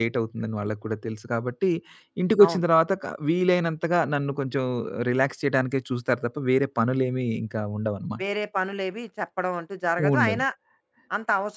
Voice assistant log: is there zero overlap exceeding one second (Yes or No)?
Yes